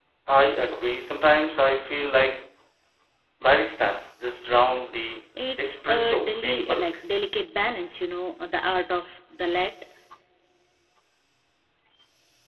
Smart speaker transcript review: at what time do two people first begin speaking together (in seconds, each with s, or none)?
5.4 s